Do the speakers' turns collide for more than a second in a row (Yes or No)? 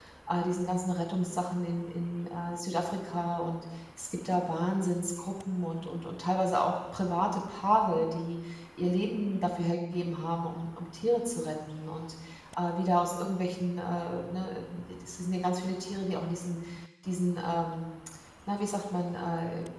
No